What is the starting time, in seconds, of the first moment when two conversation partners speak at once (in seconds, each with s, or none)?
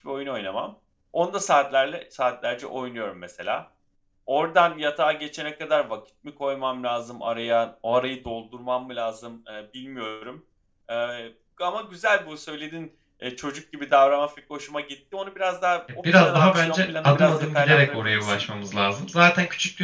16.0 s